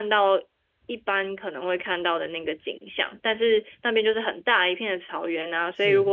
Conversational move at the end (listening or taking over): listening